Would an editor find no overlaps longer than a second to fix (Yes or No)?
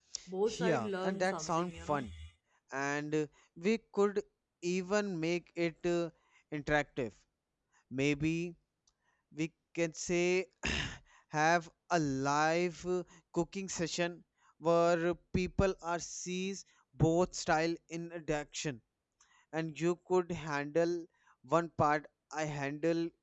No